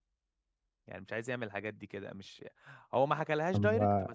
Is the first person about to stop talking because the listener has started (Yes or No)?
No